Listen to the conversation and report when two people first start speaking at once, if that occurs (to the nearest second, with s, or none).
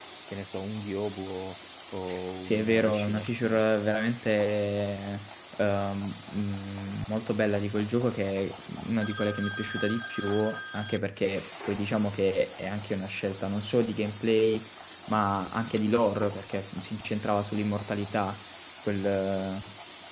2 s